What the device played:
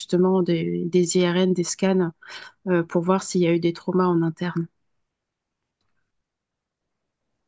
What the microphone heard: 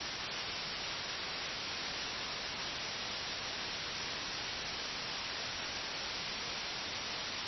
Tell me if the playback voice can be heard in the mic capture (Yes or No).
No